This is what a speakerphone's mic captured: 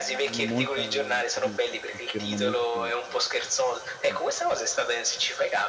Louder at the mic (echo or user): echo